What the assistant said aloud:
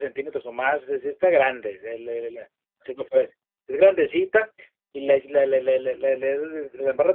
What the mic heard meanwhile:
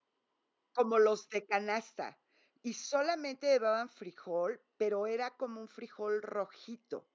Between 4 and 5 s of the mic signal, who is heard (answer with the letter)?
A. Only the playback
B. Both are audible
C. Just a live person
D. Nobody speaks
C